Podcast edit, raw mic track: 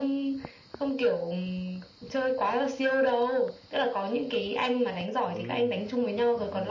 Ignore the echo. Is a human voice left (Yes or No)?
Yes